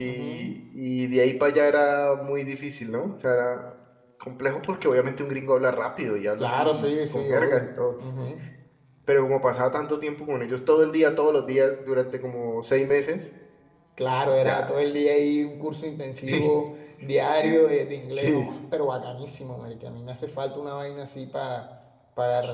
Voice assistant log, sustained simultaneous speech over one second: present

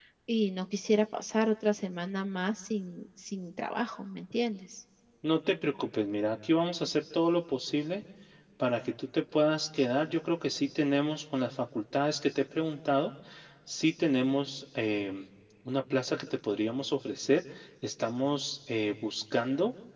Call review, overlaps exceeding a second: none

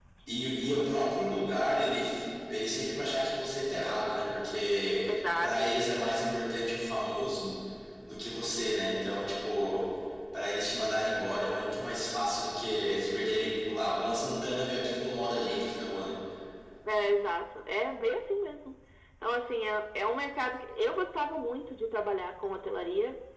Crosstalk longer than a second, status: none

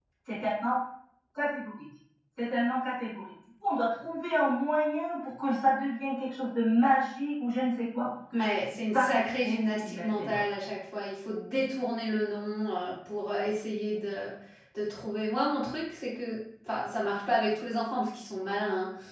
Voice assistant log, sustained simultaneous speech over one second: present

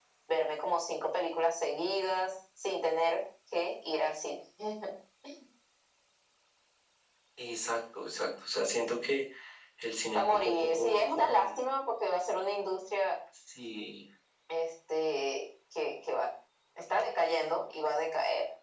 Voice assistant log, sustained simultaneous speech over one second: present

